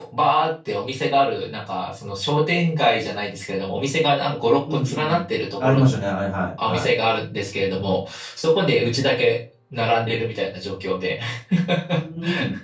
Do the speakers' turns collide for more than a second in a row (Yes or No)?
No